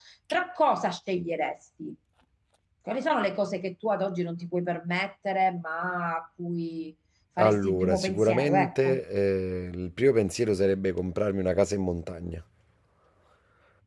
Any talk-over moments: Yes, from 7.4 s

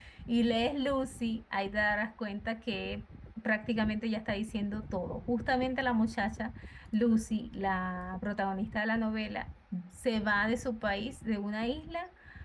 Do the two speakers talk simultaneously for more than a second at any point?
No

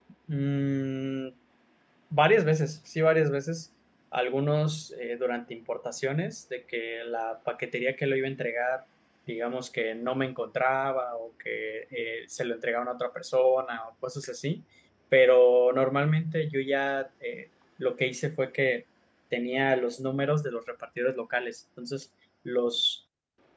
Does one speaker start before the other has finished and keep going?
No

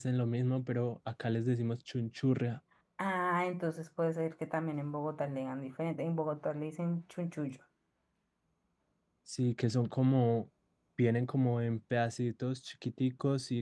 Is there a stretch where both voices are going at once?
No

